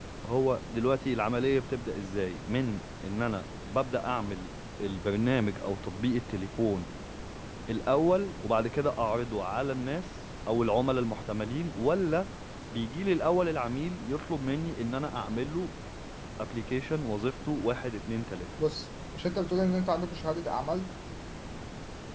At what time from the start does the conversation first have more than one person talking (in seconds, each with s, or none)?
none